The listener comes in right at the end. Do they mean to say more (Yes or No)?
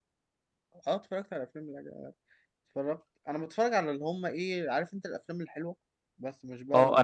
Yes